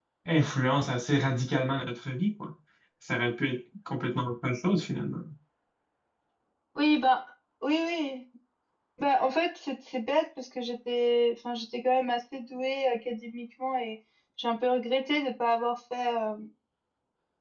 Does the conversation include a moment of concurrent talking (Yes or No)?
No